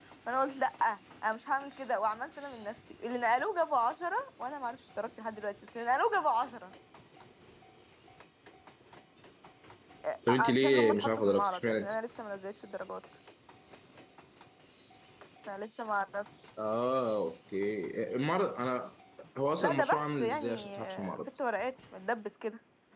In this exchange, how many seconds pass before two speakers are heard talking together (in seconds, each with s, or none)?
10.3 s